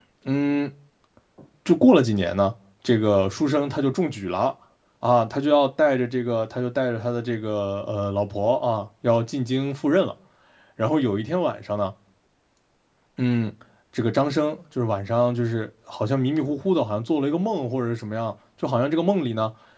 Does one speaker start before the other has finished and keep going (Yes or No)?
No